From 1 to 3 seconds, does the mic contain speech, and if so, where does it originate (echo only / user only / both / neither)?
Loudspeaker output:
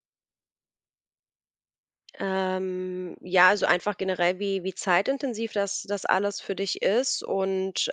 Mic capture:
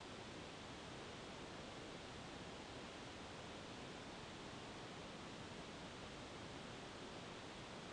neither